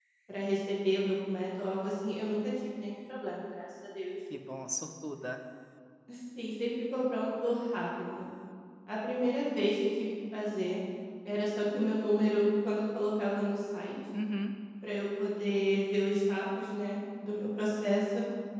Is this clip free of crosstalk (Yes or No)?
Yes